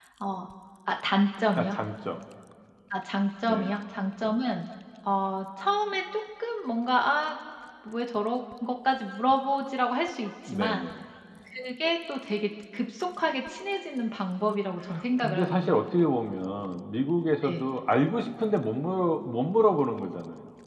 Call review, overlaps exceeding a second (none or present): none